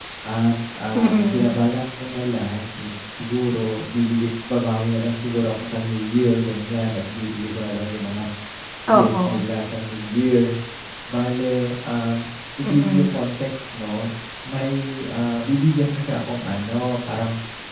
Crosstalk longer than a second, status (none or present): none